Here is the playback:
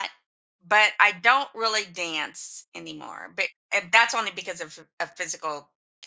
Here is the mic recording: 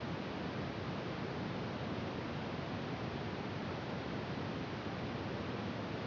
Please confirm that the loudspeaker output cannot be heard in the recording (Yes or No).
Yes